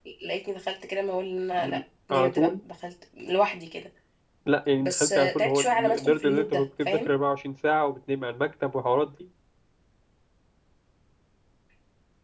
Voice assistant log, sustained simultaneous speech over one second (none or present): present